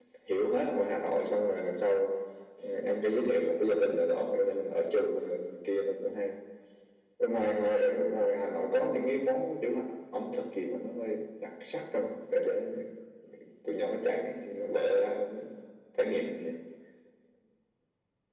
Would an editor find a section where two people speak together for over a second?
No

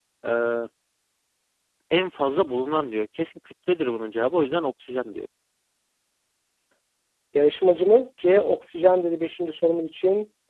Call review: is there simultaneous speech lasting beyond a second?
No

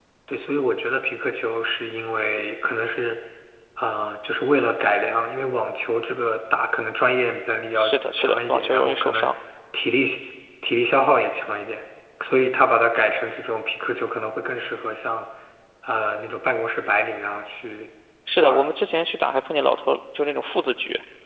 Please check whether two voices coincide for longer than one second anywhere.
Yes, from 7.8 s

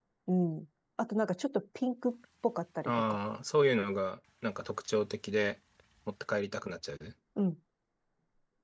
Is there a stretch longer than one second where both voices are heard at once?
No

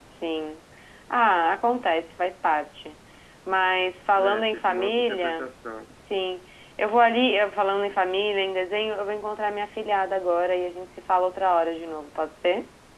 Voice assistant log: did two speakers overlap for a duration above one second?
Yes, from 4.2 s

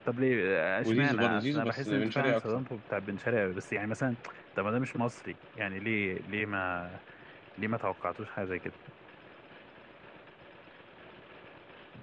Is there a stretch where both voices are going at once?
Yes, from 0.8 s

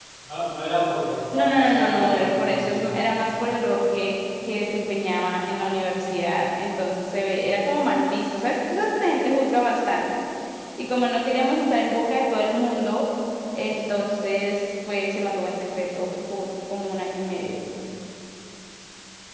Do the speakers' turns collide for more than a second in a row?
Yes, from 1.3 s

